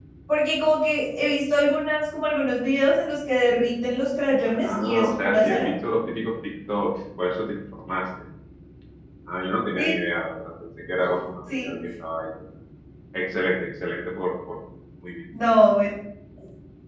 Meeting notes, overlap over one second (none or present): present